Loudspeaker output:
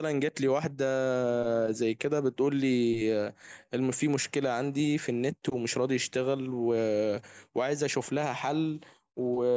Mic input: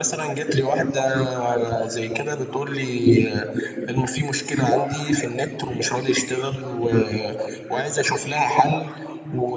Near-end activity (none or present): none